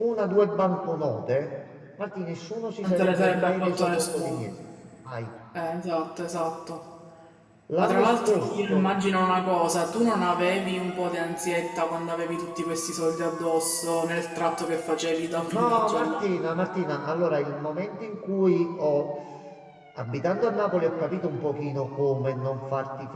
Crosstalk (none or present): present